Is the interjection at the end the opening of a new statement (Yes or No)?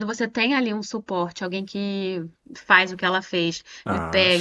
No